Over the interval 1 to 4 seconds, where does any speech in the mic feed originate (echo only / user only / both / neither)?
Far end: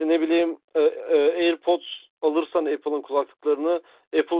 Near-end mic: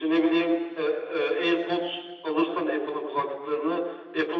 echo only